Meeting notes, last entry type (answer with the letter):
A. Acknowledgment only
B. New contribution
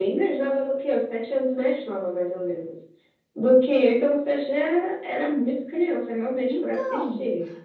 B